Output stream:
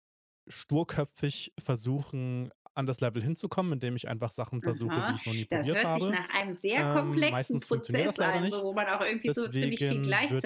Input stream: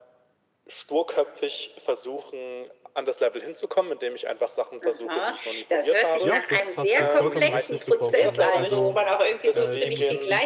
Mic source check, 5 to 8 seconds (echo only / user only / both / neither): both